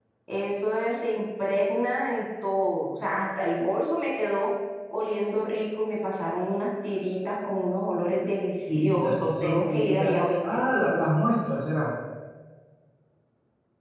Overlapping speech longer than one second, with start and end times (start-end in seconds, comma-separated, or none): 8.8-10.4